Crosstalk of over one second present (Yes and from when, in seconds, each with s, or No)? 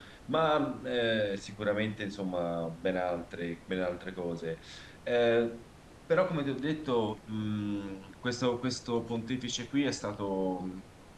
No